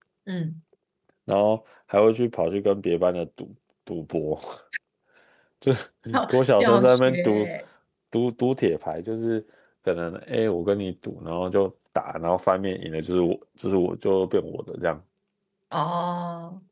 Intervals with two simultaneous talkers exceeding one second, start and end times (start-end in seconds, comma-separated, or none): 6.3-7.5